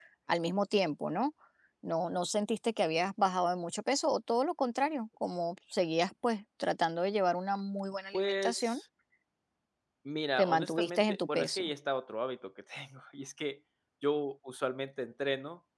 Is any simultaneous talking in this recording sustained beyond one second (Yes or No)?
Yes